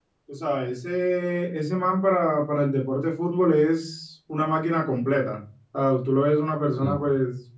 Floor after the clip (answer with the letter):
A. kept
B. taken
A